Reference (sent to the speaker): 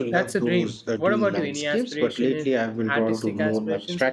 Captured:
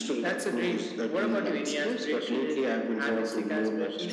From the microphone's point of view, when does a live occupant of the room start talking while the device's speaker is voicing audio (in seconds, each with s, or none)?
none